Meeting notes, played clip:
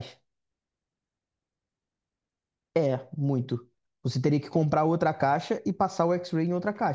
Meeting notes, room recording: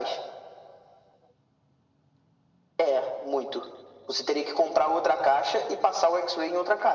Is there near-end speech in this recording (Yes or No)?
No